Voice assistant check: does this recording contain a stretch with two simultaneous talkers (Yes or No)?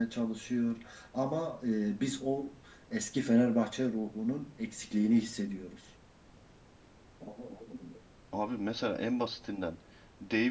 No